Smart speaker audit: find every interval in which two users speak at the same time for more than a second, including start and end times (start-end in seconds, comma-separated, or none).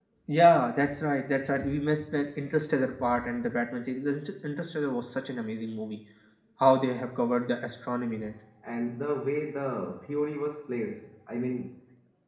none